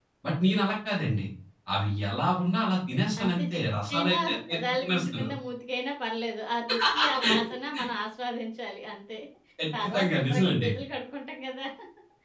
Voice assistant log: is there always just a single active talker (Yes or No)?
No